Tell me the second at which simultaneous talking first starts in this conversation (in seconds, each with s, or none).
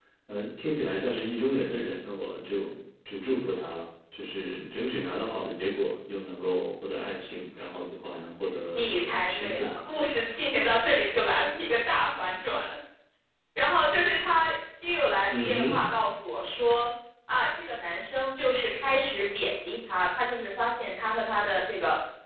8.7 s